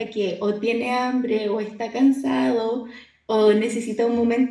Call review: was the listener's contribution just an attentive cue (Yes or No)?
Yes